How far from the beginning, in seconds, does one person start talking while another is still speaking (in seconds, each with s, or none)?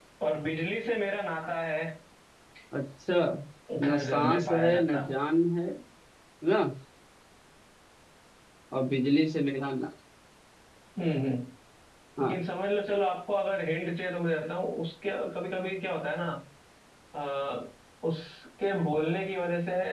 3.8 s